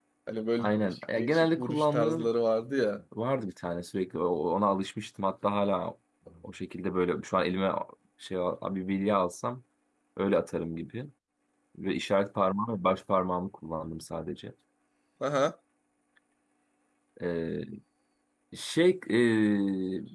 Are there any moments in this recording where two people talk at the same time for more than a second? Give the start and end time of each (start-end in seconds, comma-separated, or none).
0.6-2.3